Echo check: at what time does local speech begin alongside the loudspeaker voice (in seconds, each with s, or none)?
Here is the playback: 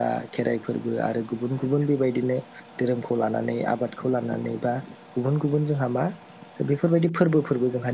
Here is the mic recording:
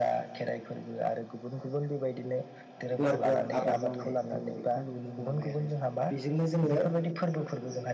2.9 s